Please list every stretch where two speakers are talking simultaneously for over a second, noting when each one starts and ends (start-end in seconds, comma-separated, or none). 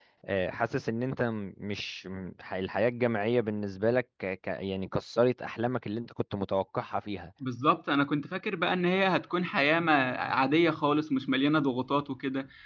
none